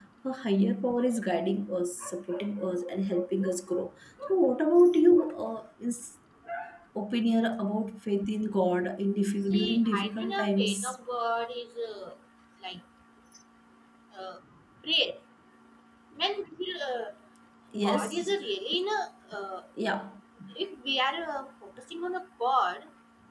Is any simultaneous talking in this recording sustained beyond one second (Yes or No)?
Yes